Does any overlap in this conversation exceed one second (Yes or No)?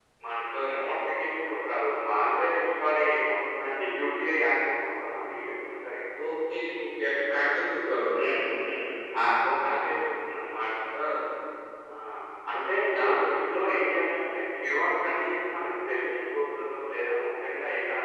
No